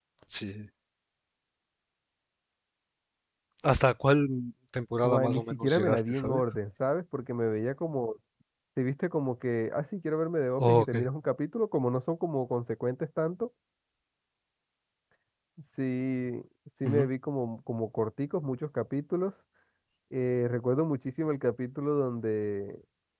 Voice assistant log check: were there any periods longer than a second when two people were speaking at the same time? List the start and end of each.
5.0-6.4

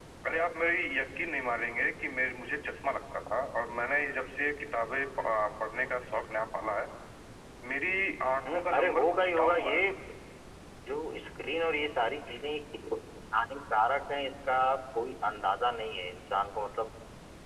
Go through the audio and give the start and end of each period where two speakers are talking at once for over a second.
8.5-9.8

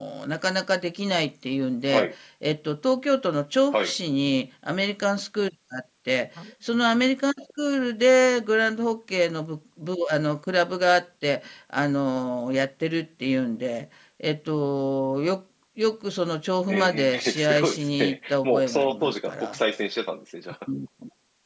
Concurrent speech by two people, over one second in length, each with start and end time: 16.7-19.6

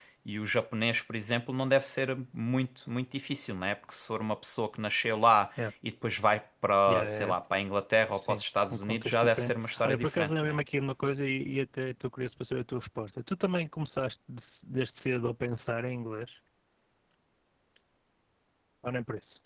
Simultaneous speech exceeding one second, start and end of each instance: 8.1-10.6

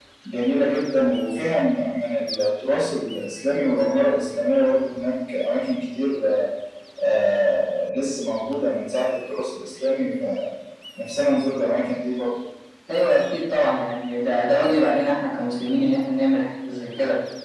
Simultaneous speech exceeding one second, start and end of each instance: none

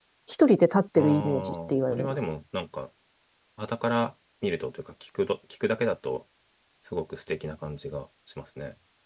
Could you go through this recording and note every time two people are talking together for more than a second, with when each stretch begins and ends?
1.0-2.2

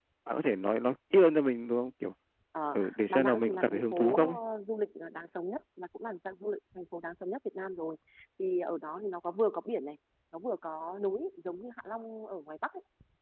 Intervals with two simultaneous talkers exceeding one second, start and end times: 2.8-4.4

